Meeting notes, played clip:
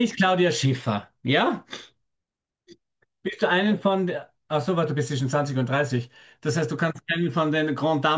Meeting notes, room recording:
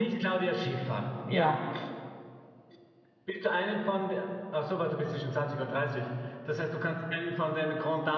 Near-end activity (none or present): present